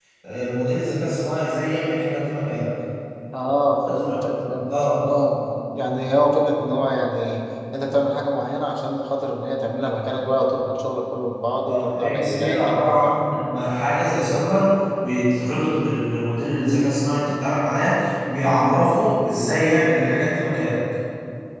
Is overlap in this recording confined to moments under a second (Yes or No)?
No